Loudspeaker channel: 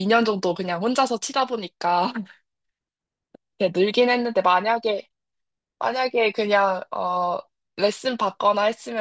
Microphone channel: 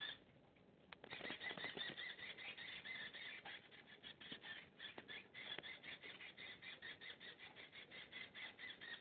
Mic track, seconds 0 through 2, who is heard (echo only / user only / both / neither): neither